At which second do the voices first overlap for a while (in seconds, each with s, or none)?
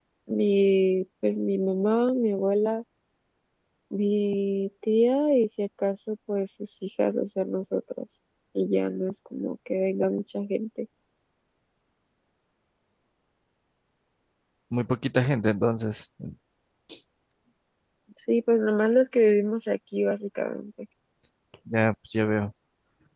none